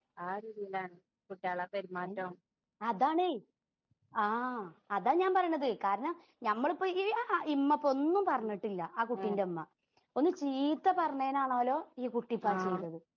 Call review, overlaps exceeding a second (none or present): none